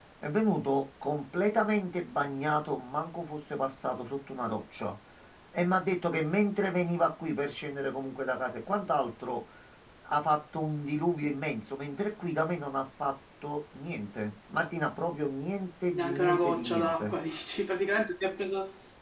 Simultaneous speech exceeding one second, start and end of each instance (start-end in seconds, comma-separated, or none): 15.9-17.1